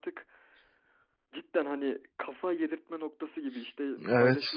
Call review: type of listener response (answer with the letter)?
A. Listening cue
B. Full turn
A